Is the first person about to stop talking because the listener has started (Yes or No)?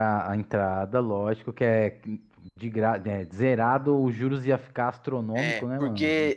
Yes